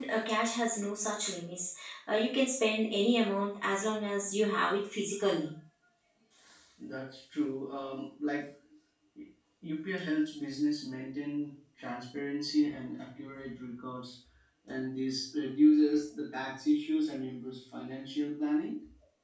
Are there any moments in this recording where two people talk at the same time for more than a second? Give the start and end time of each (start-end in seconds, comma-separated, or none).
none